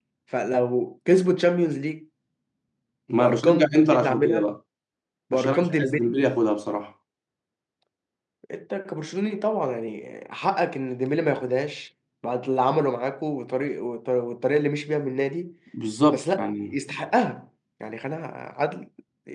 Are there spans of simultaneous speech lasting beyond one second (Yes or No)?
Yes